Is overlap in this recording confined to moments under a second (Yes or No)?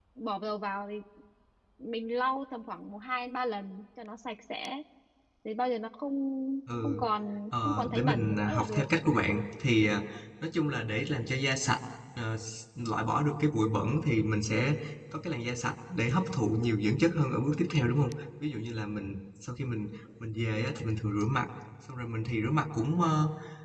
No